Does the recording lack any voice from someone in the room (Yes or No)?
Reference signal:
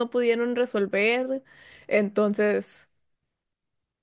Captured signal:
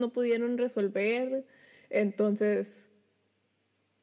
Yes